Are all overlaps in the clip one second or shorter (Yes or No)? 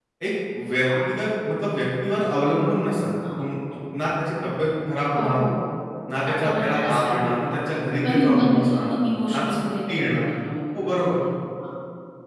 No